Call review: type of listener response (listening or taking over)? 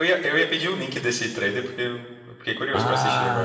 taking over